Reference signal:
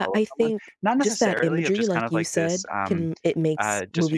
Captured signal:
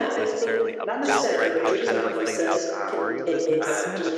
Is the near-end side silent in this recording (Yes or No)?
No